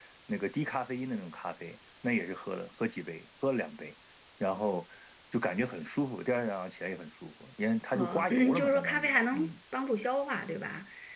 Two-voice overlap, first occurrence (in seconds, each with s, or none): 8.0 s